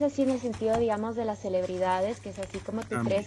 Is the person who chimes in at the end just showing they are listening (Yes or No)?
Yes